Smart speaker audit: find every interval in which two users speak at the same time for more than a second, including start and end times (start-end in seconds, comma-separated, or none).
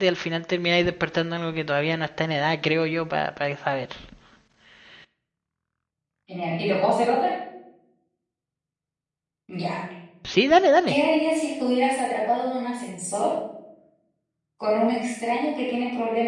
none